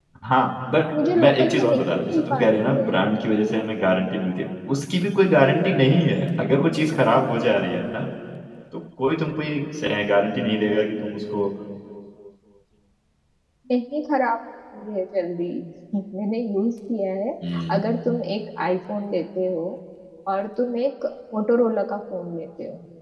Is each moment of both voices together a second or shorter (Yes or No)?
No